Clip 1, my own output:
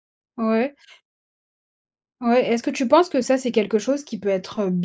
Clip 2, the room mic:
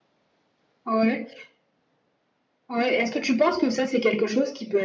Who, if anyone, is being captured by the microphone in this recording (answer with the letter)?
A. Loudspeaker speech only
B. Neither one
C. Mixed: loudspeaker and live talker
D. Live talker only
A